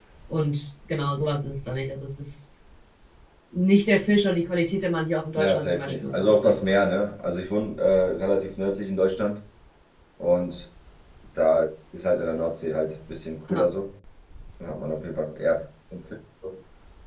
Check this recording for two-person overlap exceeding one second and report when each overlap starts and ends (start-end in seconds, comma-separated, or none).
5.3-6.8